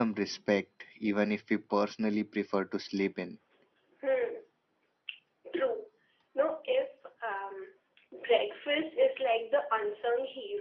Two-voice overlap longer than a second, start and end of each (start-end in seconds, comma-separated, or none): none